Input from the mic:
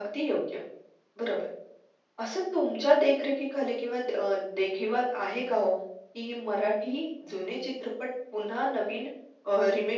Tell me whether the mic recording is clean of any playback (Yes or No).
No